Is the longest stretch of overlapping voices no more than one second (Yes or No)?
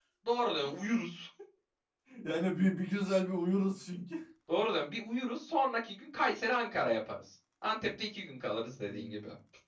Yes